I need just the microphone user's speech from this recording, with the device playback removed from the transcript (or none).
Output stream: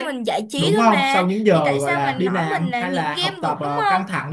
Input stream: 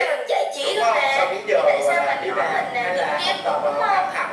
none